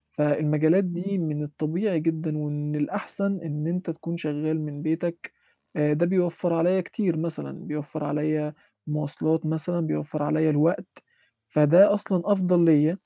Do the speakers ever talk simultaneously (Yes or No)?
No